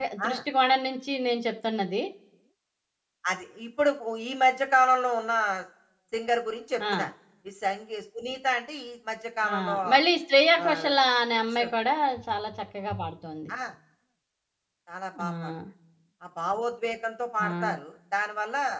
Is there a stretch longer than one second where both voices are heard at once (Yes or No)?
No